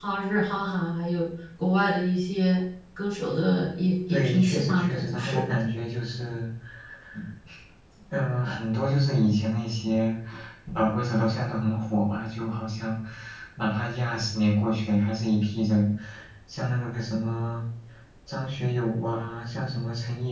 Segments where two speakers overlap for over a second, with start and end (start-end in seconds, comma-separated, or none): 4.1-5.4